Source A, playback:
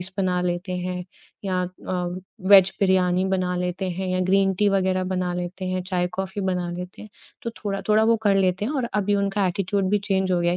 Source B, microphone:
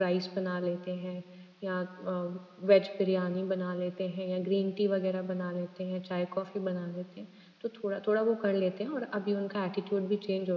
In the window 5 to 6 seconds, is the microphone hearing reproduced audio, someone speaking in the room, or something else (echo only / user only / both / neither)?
echo only